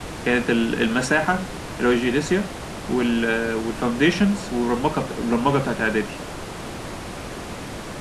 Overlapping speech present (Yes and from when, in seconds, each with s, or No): No